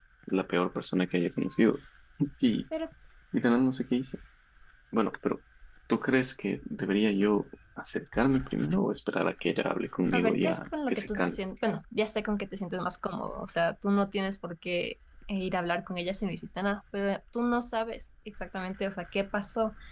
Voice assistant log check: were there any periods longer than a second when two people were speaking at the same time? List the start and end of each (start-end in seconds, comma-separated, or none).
10.1-11.4